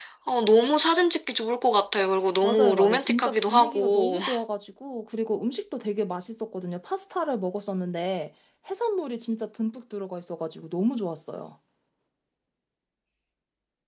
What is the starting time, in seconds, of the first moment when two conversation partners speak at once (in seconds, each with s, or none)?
2.4 s